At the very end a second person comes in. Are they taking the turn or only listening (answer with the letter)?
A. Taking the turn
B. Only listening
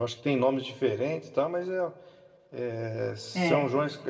B